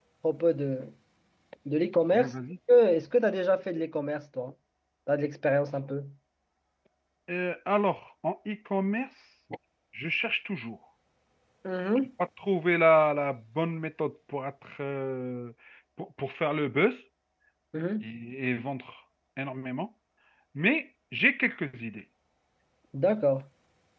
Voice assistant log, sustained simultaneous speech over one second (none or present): none